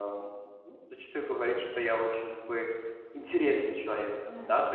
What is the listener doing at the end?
listening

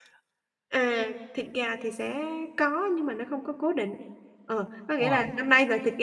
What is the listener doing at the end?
listening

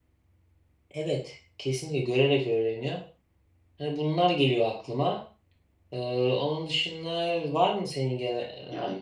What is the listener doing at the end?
taking over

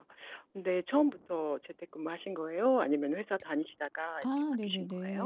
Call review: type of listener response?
taking over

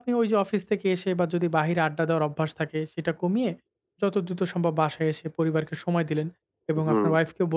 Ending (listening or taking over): listening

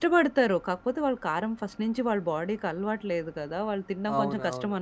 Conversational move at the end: listening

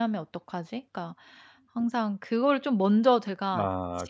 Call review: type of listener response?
listening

